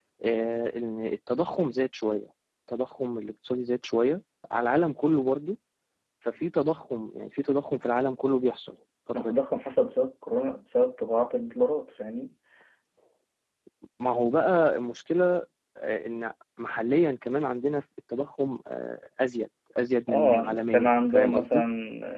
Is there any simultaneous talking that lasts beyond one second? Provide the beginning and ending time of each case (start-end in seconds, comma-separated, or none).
20.1-21.6